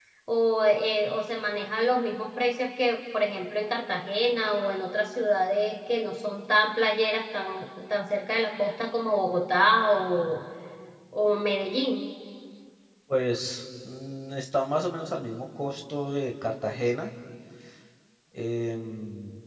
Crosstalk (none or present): none